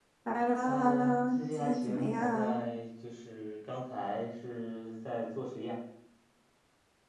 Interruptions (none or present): present